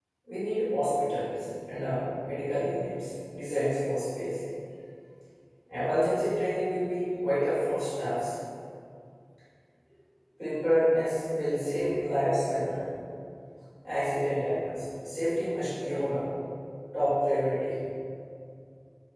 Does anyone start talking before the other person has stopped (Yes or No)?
No